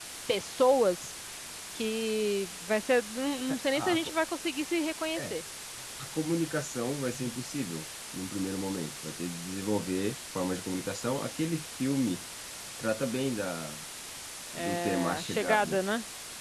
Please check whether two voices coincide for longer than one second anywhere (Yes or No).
Yes